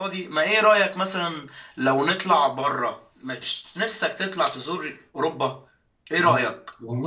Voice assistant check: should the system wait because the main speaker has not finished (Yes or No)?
No